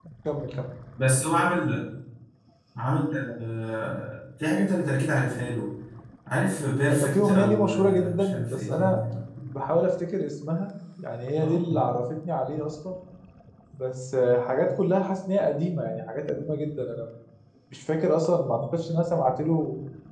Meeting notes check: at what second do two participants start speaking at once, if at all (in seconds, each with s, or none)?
6.9 s